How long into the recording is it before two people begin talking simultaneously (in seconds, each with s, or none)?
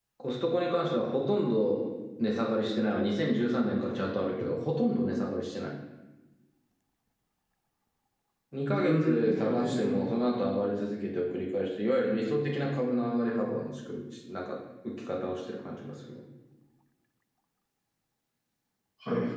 8.7 s